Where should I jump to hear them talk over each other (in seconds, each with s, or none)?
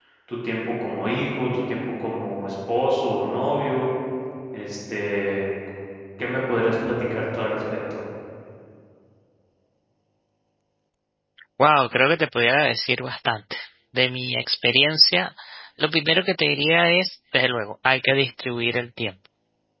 none